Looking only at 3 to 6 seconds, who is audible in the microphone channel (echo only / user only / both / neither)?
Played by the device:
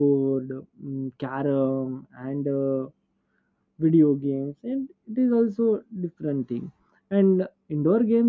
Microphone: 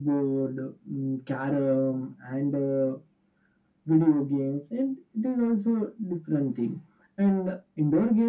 echo only